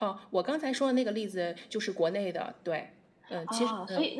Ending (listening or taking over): taking over